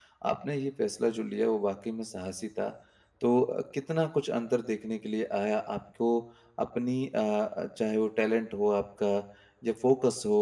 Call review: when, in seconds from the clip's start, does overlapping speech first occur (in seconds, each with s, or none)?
none